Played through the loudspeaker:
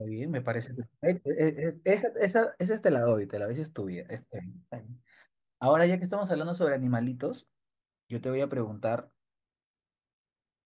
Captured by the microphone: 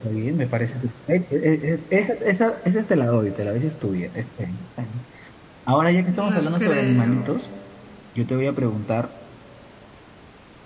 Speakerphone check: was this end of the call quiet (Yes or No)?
No